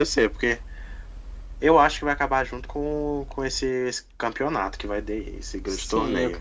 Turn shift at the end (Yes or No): Yes